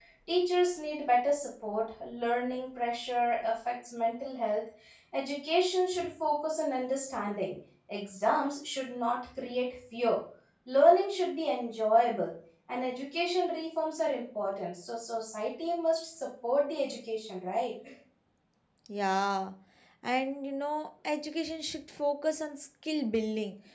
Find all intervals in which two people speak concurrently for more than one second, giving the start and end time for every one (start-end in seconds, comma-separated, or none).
none